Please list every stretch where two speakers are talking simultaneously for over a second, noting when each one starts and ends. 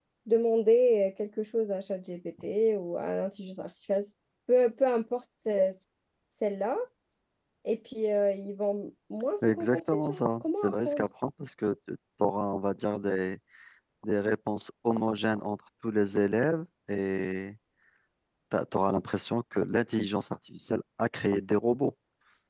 9.4-11.1

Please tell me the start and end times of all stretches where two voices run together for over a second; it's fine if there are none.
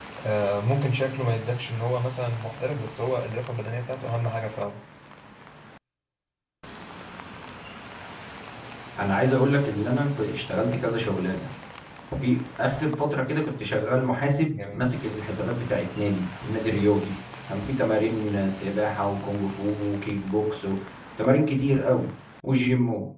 none

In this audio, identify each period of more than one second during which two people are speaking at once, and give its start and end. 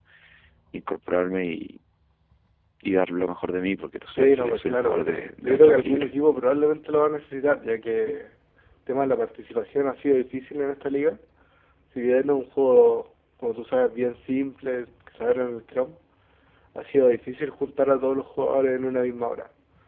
4.1-6.1

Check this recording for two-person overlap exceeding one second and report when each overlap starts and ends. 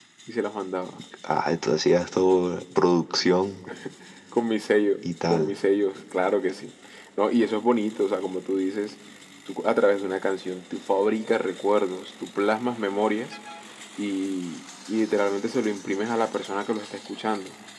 none

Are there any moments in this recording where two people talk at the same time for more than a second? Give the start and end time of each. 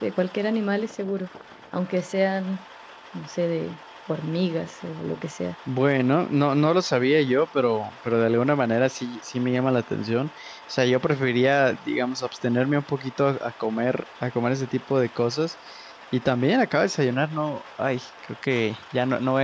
none

